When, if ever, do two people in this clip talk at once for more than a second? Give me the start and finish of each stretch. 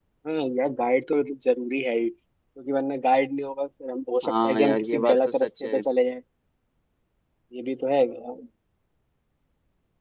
4.2-5.8

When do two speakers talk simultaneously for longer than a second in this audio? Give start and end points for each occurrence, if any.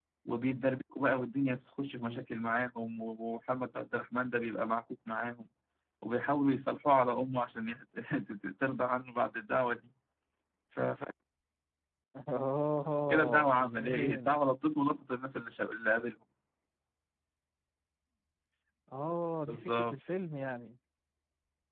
13.1-14.4

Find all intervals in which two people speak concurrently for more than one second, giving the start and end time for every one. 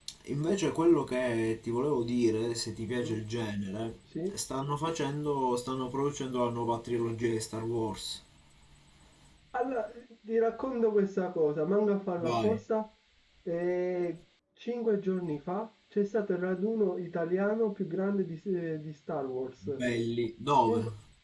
none

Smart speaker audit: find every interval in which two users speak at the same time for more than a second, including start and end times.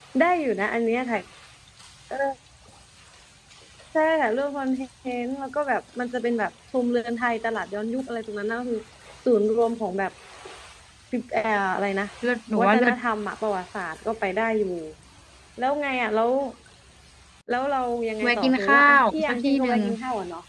18.2-19.8

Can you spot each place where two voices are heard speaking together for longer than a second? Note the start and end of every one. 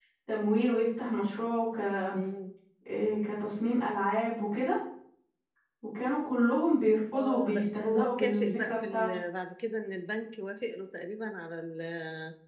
7.2-9.2

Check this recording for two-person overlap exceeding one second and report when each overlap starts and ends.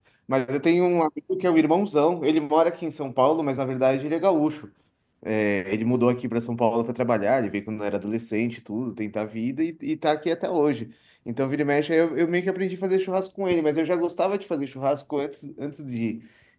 none

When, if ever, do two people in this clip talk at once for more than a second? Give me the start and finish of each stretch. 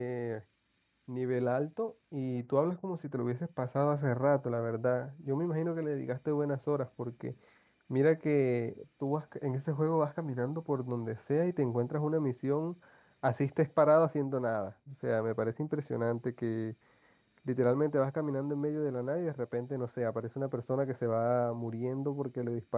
none

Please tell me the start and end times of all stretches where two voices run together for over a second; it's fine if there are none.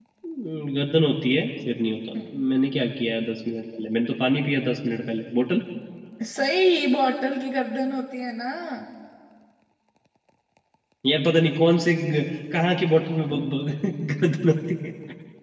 none

